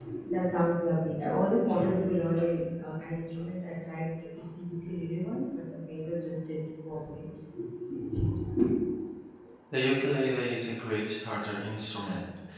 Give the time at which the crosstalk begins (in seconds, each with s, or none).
none